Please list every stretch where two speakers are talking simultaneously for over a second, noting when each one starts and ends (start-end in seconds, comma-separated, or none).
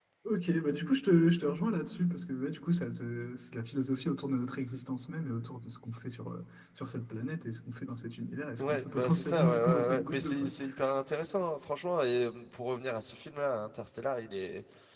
8.6-10.5